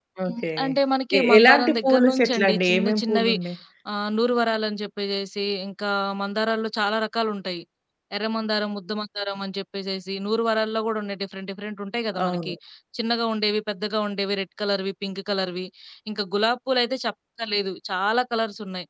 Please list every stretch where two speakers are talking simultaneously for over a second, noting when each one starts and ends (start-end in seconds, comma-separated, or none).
1.2-3.4